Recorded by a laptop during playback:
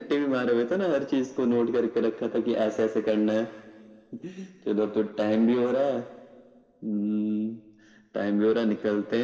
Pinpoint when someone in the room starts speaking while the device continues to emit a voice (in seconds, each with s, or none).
none